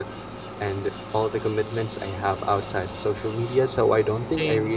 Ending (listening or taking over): listening